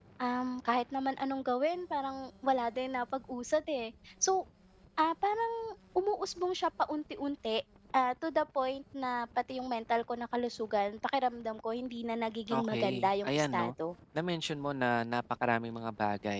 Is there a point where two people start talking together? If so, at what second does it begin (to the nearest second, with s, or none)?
13 s